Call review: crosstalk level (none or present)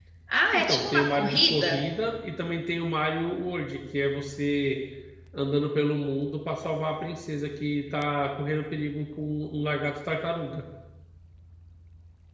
present